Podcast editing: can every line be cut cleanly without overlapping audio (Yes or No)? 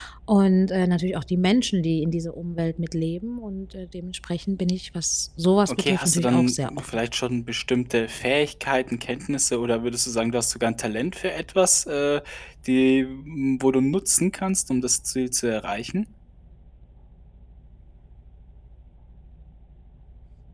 No